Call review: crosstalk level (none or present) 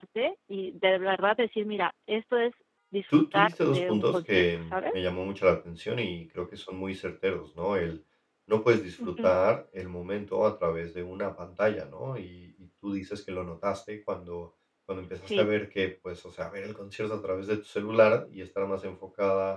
present